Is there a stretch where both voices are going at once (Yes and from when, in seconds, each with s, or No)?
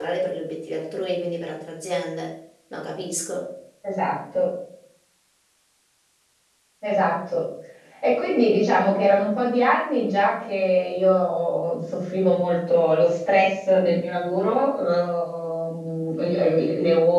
No